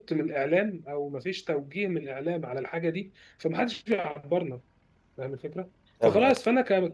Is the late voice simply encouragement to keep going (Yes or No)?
Yes